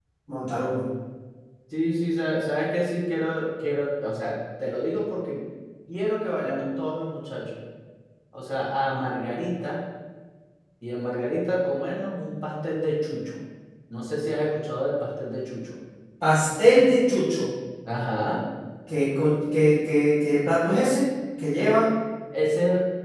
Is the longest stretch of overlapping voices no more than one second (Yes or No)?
Yes